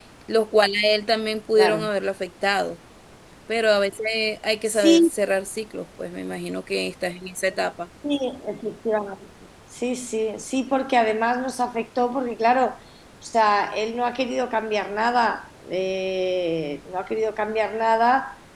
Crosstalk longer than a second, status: none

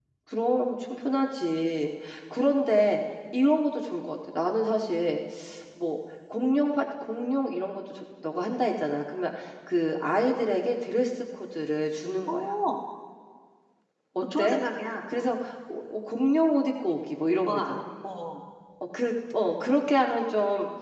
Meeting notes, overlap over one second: none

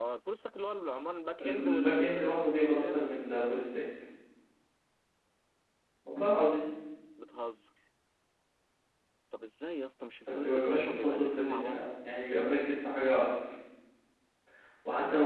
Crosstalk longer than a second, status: present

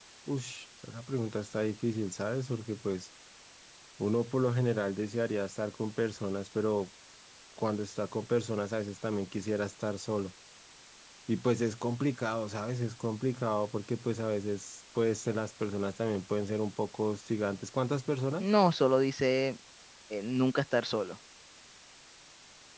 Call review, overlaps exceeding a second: none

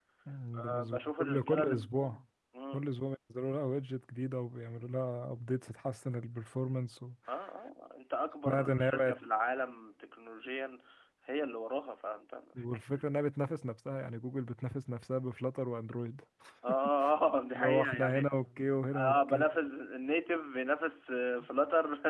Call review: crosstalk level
present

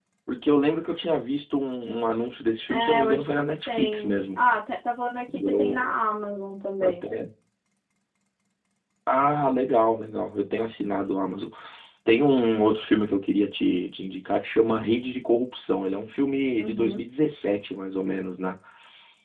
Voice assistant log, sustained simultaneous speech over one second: present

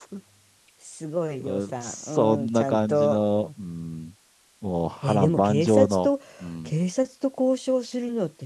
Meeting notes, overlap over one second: present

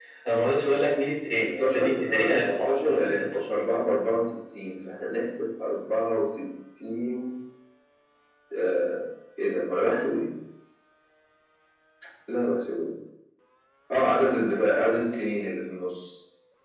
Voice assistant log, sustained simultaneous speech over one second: present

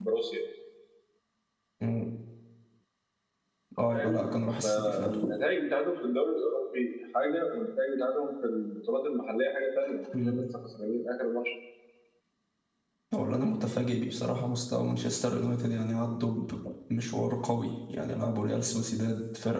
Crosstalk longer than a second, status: none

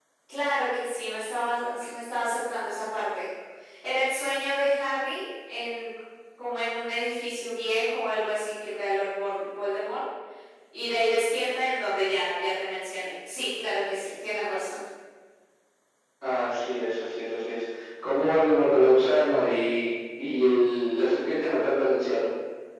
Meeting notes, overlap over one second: none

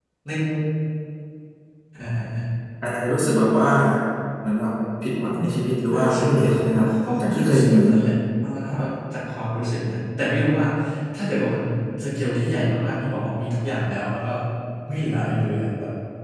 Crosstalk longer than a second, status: present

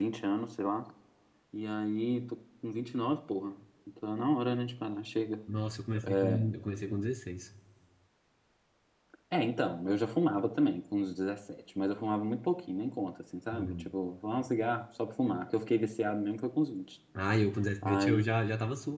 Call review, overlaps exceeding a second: none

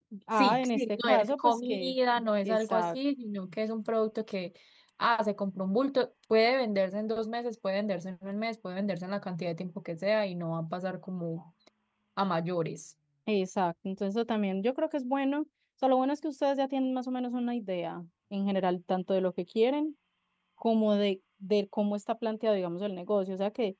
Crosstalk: present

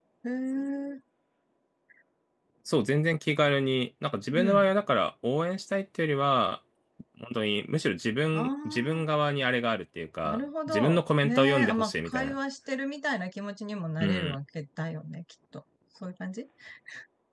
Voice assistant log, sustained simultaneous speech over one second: present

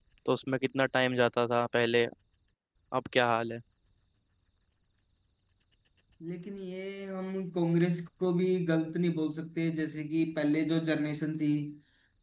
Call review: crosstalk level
none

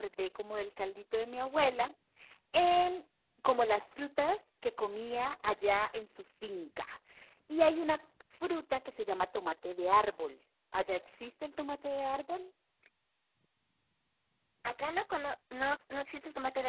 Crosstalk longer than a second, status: none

